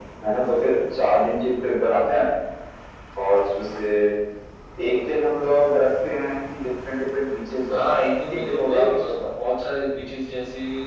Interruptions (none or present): present